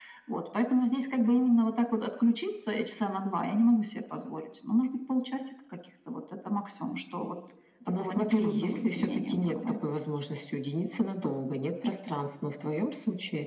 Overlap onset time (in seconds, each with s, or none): 8.0 s